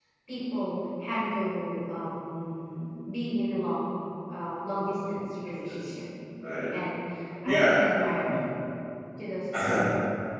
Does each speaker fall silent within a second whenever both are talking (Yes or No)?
Yes